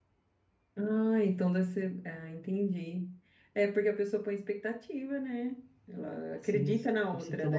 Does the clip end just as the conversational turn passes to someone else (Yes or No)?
Yes